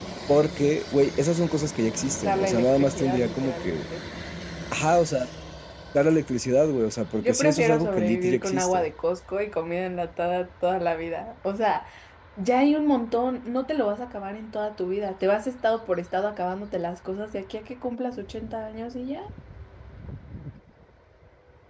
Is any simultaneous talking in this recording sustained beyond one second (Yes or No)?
Yes